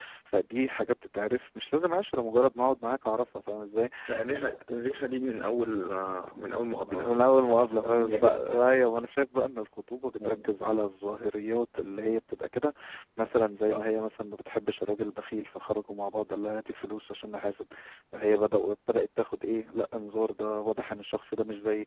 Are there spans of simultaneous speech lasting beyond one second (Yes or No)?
Yes